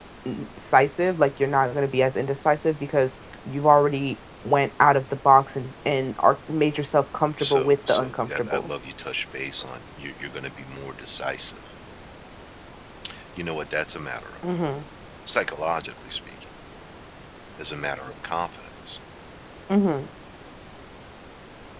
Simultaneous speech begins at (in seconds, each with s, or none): 7.4 s